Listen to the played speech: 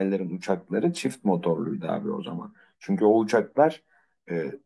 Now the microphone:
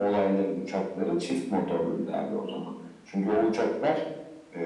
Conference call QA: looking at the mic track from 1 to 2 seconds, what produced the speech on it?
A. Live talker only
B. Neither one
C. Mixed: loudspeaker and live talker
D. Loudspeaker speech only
D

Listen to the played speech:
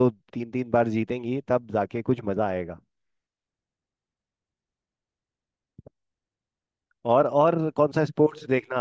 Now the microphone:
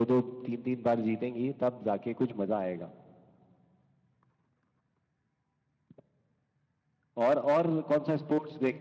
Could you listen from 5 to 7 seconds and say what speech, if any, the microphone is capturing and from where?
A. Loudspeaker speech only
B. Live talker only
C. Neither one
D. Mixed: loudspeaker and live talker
C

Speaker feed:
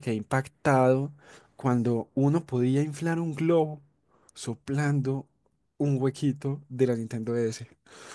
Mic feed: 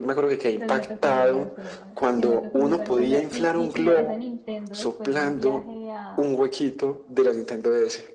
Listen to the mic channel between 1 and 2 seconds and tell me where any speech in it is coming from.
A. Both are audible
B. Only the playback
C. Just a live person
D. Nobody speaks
A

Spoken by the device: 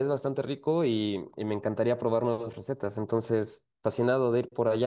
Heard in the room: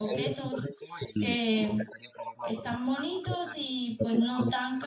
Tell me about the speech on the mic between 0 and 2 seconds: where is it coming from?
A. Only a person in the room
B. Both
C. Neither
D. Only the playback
B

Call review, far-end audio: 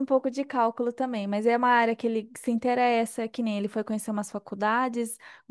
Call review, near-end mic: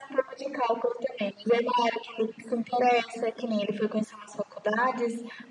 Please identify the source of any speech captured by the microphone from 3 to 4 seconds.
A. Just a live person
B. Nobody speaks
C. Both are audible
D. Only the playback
D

